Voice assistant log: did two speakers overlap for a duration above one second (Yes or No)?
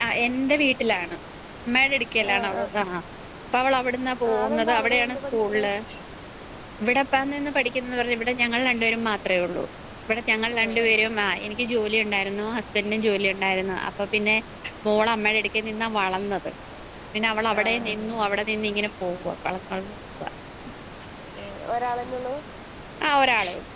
Yes